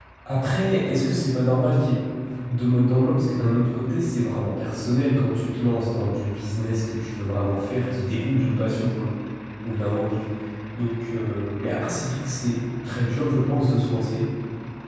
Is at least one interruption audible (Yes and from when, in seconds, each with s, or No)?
No